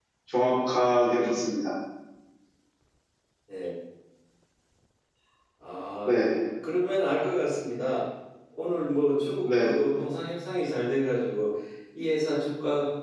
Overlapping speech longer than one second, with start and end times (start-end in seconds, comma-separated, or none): none